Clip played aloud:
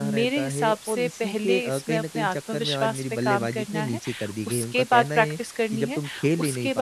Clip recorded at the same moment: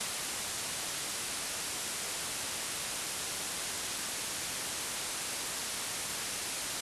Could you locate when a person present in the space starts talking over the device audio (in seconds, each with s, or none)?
none